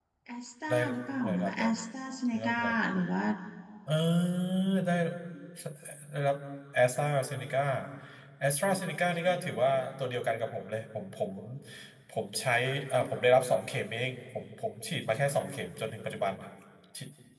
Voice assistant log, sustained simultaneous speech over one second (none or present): none